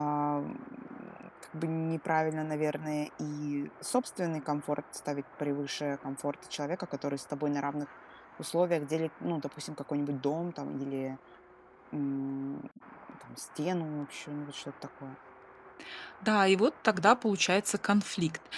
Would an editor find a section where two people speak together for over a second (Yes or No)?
No